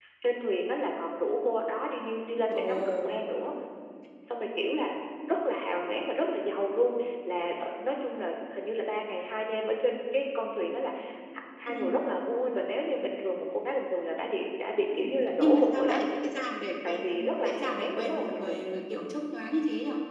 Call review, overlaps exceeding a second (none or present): present